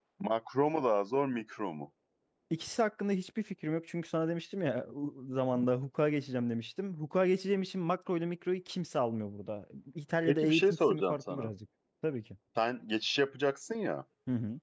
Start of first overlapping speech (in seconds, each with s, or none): 10.3 s